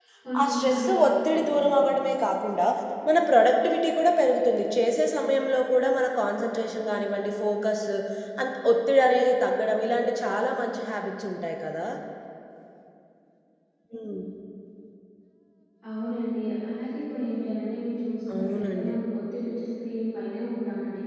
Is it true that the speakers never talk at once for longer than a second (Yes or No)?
No